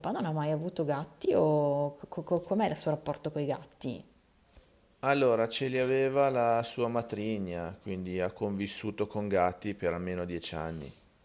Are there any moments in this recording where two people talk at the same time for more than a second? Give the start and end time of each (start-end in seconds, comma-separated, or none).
none